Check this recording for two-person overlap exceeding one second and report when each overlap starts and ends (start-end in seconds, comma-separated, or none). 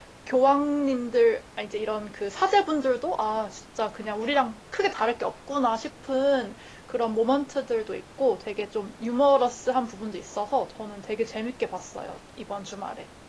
none